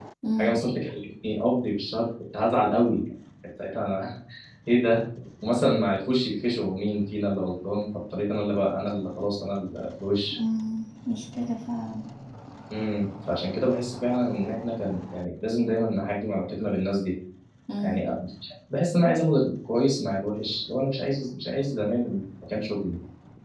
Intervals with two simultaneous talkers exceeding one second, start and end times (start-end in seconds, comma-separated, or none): none